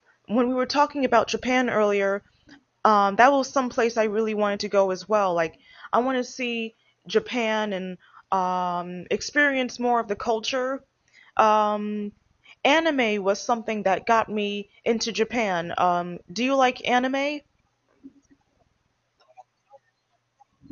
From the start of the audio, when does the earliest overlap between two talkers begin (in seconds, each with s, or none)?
none